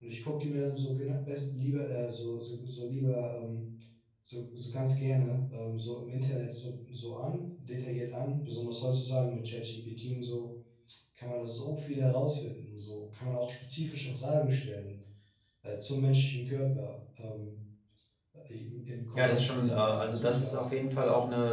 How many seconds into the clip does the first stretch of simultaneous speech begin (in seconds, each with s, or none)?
19.2 s